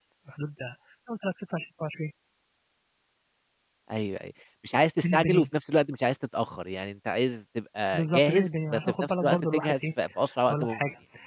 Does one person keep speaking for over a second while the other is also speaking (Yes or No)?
Yes